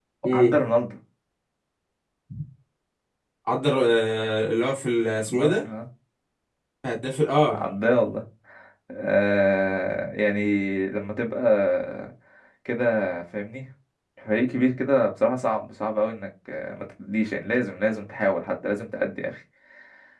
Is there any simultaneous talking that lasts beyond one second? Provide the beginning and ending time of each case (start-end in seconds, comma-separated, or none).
none